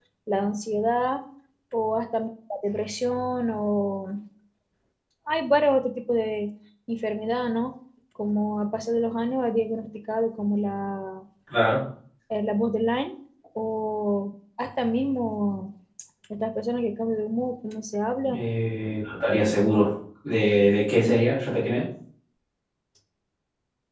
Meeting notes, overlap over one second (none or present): none